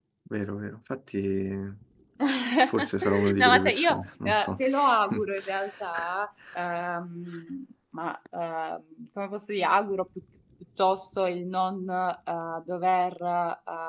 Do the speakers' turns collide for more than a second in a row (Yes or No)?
Yes